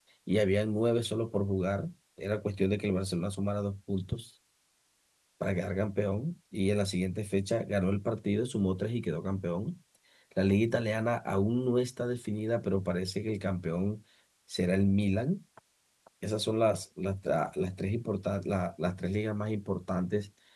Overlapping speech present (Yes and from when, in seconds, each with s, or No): No